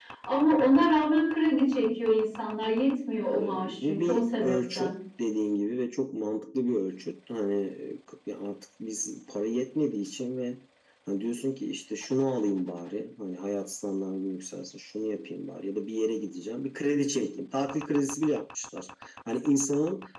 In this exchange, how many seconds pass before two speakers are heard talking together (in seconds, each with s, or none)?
3.4 s